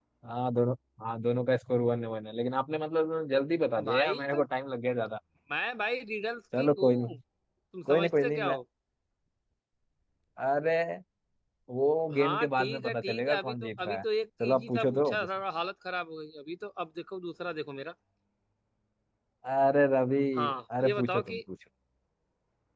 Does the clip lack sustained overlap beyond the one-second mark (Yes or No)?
No